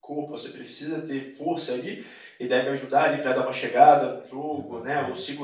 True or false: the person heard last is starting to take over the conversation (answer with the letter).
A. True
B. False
B